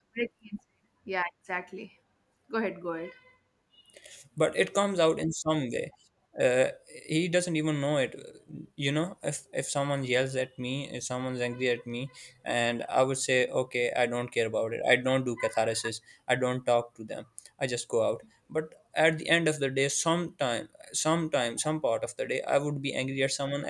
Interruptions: none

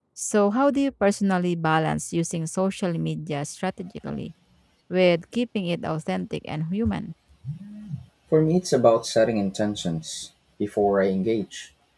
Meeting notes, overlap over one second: none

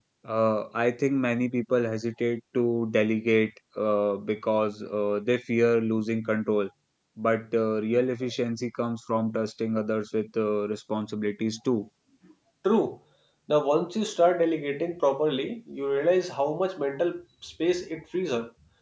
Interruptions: none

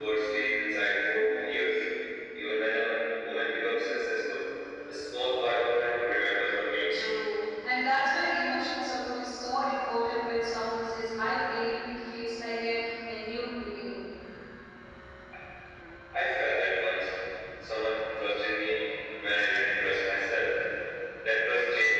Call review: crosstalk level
none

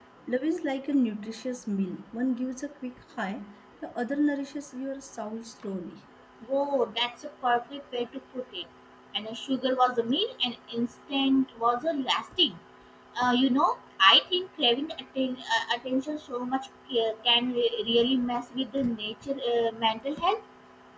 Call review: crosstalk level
none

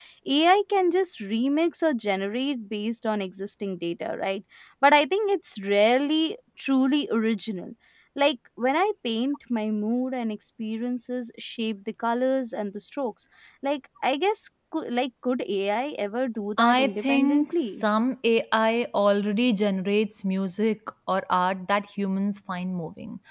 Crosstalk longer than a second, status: present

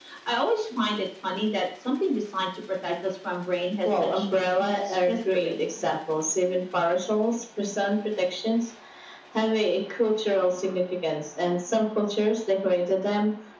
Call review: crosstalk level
present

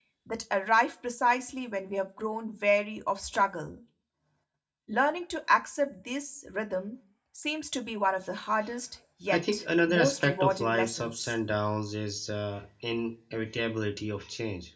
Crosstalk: present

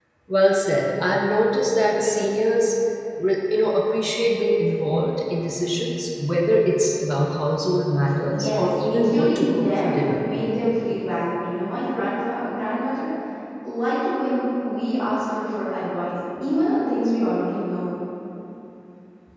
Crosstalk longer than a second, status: present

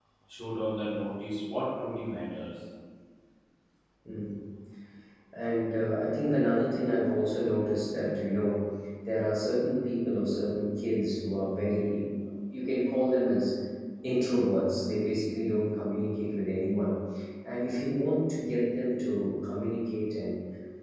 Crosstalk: none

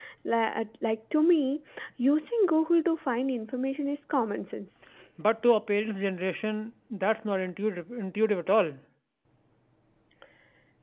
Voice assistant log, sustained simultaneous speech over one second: none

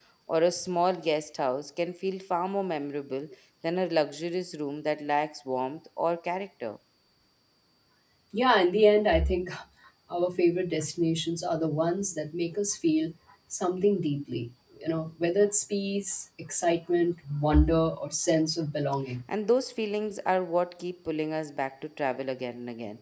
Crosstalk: none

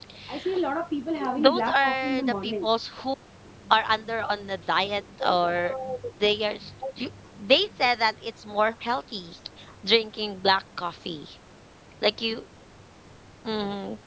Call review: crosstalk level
present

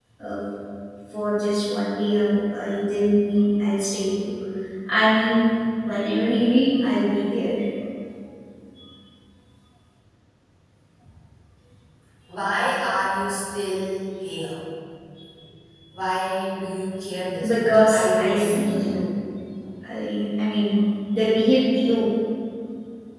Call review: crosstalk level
present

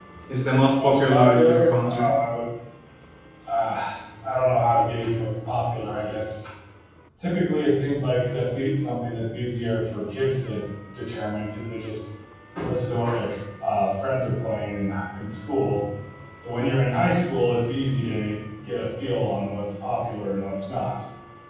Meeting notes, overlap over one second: present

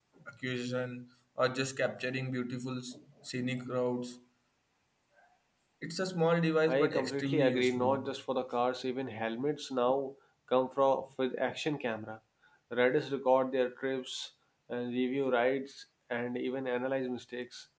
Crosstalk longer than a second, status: present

